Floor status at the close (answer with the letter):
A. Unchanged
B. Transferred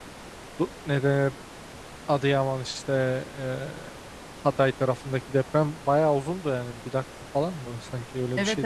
B